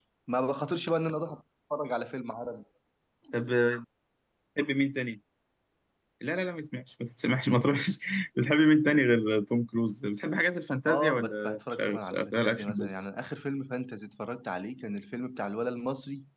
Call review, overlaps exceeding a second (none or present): present